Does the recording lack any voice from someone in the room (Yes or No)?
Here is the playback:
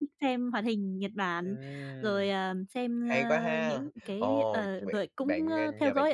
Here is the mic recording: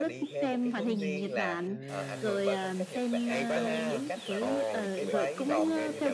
No